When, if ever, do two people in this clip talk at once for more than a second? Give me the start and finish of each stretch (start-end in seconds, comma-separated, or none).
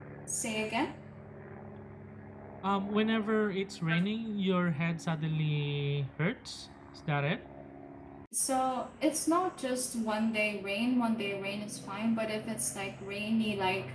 none